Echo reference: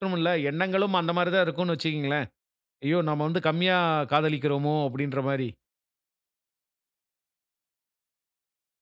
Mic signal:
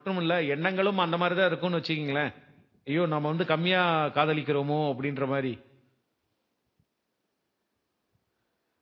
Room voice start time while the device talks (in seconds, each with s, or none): none